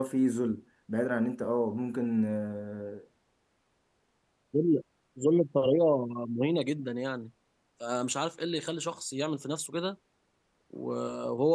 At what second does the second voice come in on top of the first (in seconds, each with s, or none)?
none